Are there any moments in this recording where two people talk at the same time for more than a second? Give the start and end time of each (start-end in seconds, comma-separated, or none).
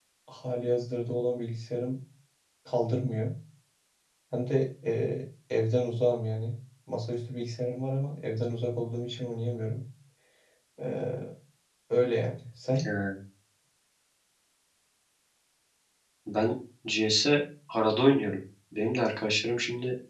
none